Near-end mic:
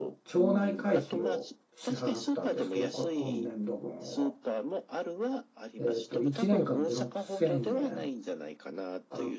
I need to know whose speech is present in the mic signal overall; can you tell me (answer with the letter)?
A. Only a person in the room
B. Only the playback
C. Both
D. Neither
C